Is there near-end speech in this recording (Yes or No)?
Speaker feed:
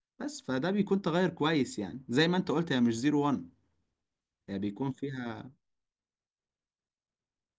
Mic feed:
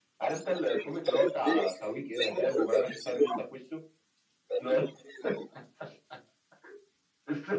Yes